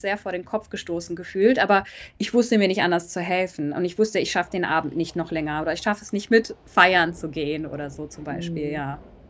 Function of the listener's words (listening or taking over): taking over